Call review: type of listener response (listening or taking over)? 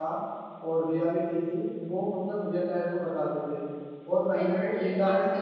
taking over